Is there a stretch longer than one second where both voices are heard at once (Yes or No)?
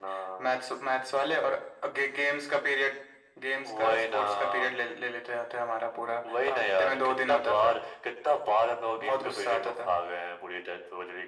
Yes